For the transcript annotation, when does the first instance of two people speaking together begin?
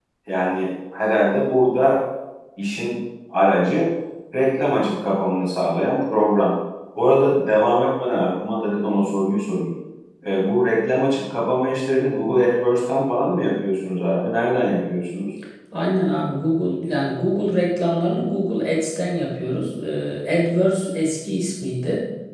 none

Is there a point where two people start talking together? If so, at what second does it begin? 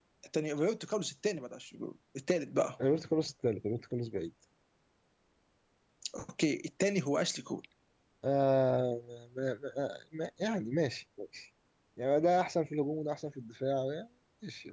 none

